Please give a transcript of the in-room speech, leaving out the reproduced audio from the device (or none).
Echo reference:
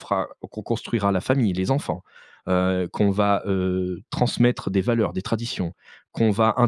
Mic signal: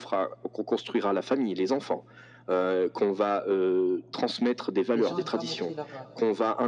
Les gens aiment pas montrer leur heu